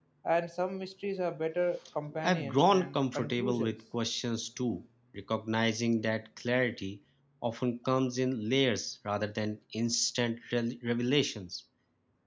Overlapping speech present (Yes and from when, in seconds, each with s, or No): Yes, from 2.2 s